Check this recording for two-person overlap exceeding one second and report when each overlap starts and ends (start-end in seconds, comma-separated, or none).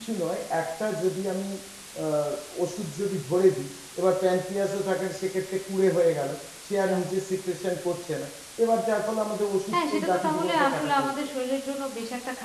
9.7-11.1